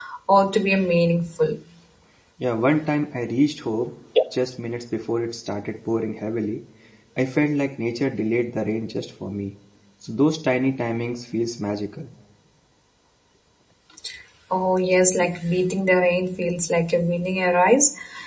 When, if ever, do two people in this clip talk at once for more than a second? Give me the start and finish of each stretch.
none

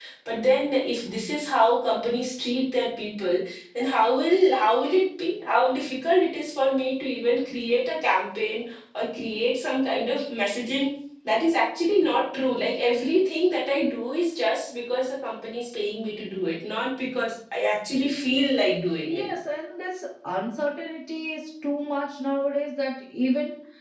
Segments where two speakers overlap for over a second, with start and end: none

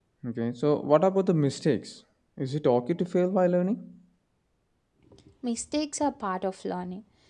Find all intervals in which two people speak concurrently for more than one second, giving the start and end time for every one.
none

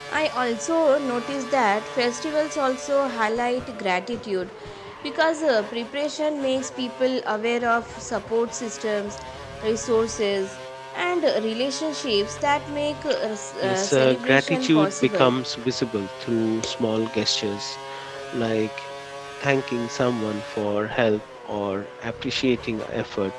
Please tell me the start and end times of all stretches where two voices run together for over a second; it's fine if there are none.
13.6-15.3

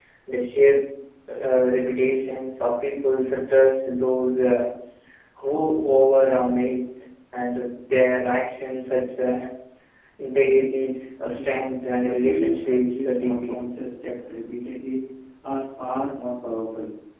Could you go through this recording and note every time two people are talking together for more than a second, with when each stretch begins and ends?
12.0-13.6

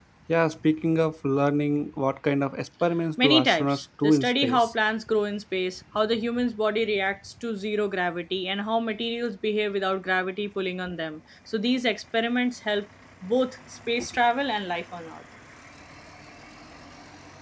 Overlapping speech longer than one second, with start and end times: 3.2-4.7

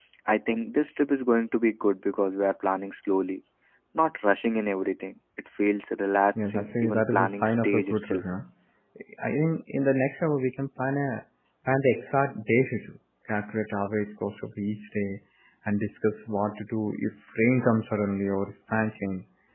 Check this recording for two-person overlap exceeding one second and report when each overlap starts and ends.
6.4-8.2

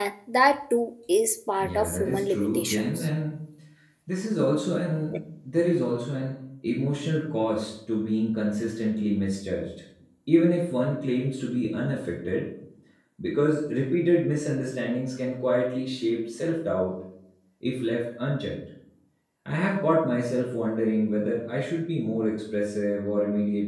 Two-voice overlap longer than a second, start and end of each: 1.6-3.1

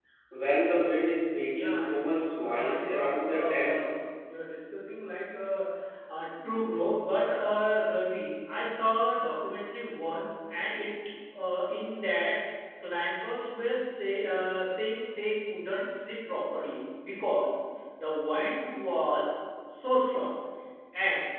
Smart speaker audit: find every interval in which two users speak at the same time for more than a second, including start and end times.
1.5-4.0

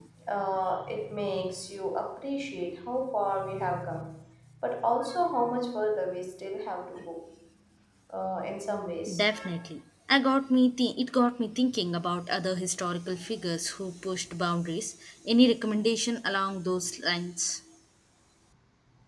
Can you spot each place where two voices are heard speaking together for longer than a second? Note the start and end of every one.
none

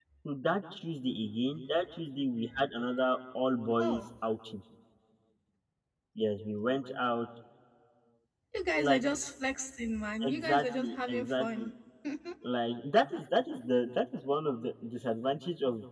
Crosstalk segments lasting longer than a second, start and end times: 10.2-11.7

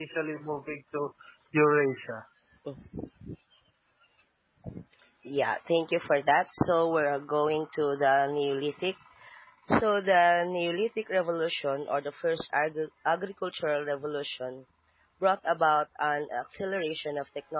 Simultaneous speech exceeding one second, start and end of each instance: none

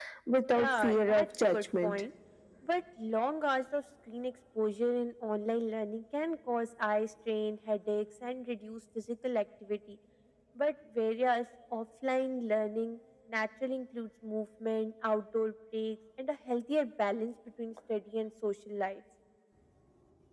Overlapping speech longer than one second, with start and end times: 0.5-2.0

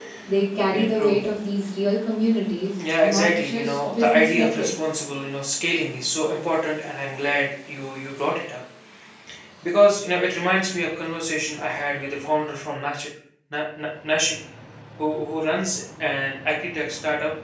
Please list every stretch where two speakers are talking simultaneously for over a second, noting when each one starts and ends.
3.0-4.7

